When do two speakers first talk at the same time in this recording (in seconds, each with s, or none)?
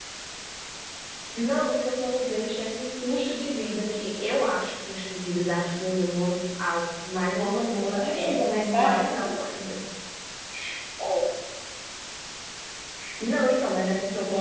7.3 s